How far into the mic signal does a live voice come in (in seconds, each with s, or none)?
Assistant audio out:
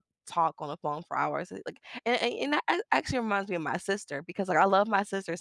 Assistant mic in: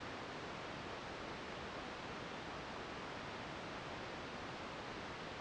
none